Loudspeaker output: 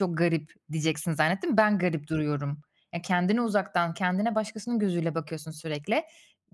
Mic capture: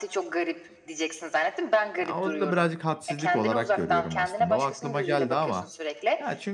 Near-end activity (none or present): present